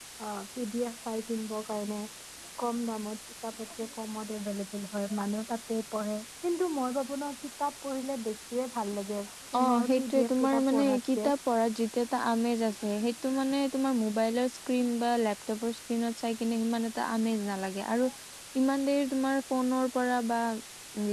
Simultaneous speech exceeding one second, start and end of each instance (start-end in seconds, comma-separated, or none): 9.6-11.3